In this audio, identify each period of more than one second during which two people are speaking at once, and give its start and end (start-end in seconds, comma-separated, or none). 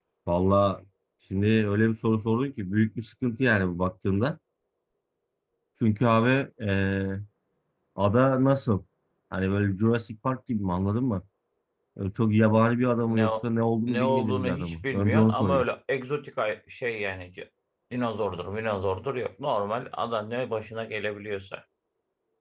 13.9-15.6